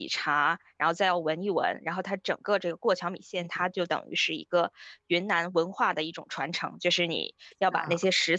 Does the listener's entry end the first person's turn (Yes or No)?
No